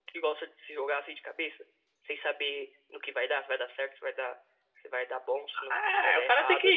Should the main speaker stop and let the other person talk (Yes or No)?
Yes